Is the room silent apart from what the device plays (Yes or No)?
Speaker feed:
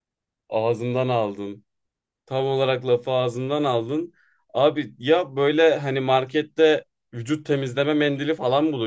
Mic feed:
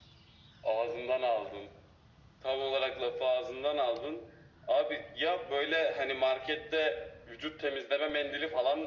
Yes